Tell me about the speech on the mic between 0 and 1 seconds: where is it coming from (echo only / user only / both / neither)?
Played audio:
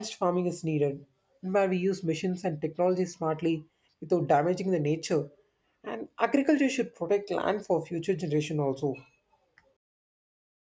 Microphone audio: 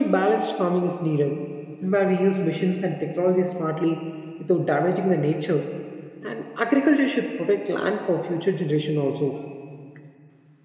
echo only